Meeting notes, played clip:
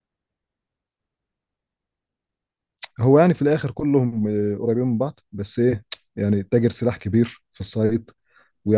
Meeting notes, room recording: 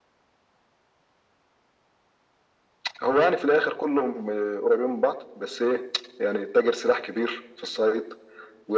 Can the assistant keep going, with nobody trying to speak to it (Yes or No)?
Yes